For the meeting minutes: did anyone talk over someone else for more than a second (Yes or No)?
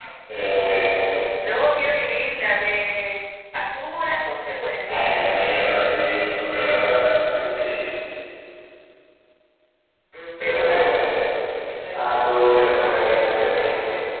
No